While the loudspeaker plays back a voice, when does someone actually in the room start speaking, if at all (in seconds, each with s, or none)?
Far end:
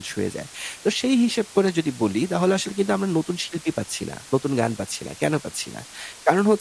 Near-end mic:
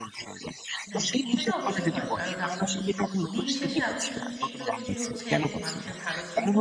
0.9 s